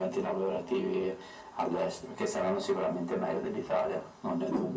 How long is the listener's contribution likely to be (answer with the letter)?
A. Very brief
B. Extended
B